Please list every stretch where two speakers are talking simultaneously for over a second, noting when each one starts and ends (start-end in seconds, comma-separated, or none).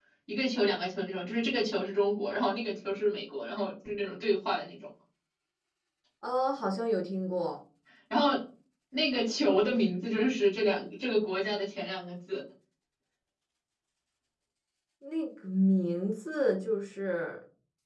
none